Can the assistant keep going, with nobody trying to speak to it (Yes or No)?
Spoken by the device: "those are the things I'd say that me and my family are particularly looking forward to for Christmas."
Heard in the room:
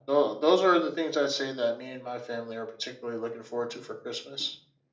Yes